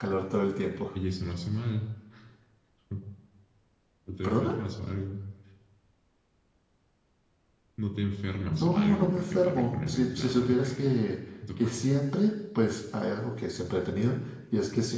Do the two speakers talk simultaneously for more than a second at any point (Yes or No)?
Yes